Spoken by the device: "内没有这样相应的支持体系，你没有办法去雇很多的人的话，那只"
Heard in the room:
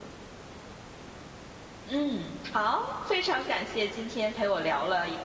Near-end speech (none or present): present